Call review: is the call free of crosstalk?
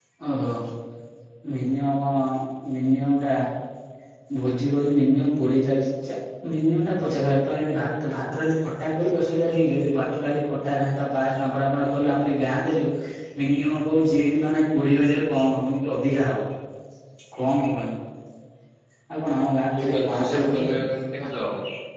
No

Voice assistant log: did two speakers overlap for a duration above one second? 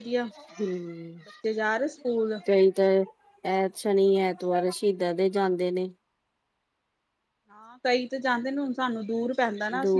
No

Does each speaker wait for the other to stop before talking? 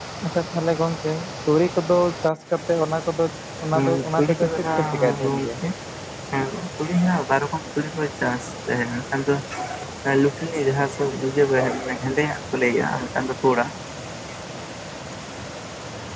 No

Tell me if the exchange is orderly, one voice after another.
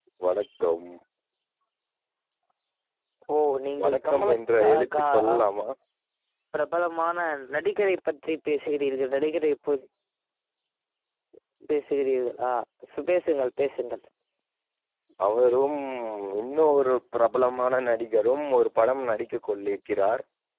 No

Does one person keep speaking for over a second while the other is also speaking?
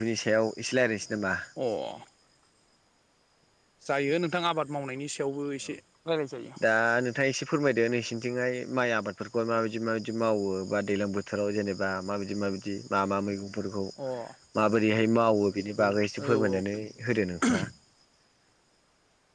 No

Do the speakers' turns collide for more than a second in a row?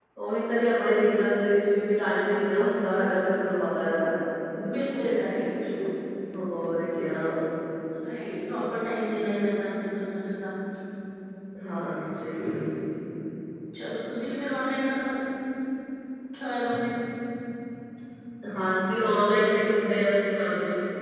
No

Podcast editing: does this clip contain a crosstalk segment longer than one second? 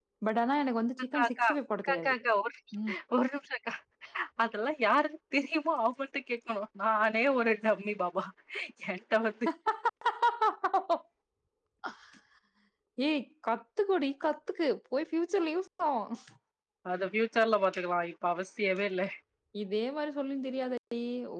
No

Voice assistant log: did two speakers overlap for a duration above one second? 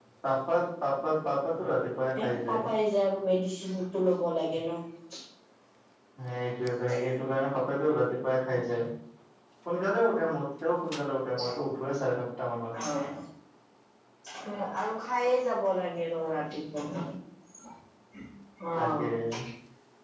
No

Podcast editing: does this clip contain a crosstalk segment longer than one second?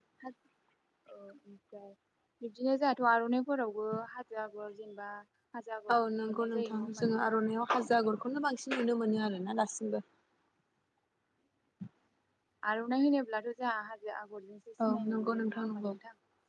Yes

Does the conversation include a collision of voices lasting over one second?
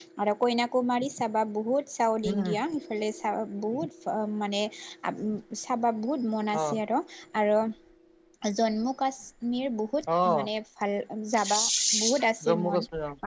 No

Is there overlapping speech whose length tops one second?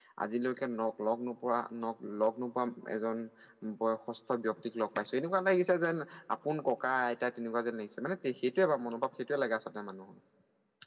No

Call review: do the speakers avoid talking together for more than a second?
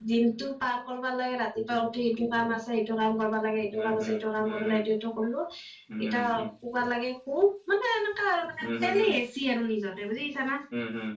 Yes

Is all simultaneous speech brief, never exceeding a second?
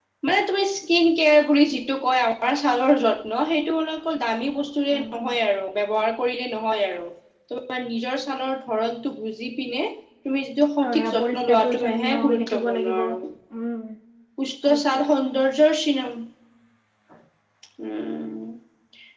No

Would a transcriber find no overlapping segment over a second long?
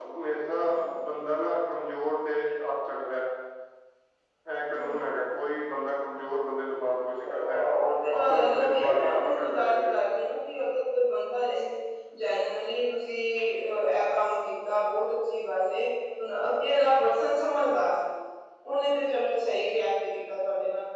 No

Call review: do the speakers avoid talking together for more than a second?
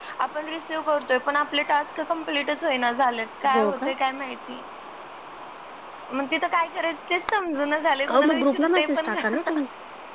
No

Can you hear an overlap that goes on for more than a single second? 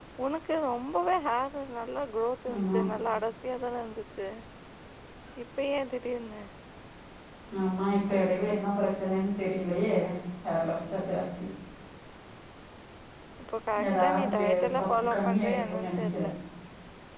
Yes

